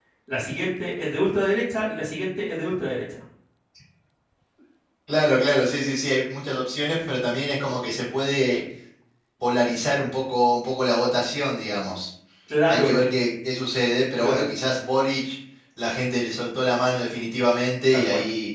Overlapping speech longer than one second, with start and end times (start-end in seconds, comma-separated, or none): none